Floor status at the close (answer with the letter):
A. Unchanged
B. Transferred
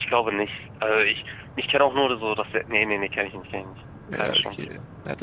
B